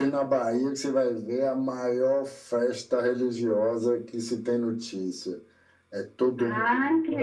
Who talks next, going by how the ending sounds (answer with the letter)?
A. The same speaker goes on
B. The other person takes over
B